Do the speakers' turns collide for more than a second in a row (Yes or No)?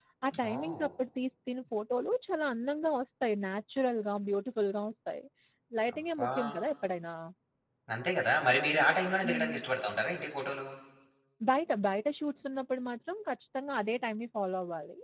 No